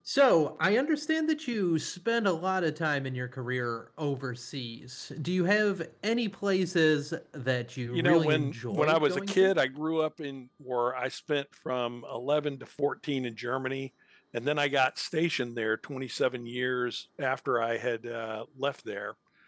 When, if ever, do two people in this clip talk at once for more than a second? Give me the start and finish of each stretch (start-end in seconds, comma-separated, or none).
7.9-9.5